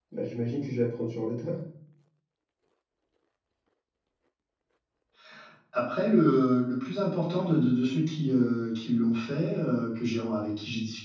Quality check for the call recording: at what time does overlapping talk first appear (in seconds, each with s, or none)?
none